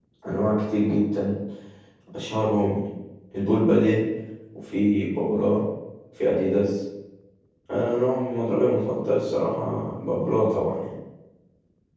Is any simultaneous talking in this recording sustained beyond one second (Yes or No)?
No